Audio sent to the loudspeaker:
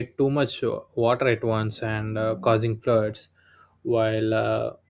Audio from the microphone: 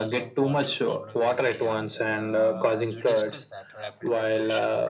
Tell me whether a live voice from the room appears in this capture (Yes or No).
Yes